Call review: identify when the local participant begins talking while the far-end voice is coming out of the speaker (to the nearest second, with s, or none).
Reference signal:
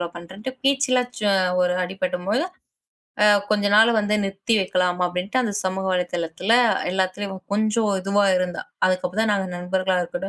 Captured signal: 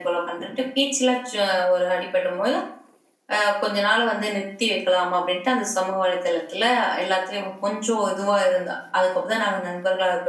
none